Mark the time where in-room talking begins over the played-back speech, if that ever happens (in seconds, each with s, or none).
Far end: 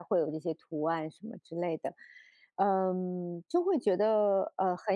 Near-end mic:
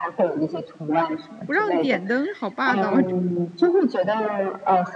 1.4 s